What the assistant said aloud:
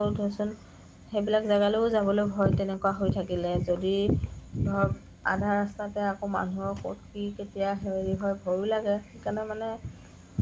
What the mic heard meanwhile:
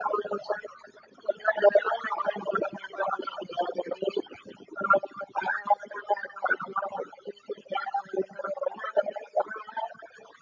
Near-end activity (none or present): none